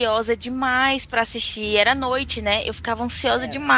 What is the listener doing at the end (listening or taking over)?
listening